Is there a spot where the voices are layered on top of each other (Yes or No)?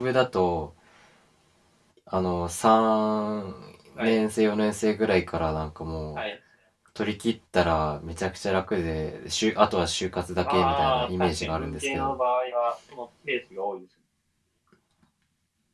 Yes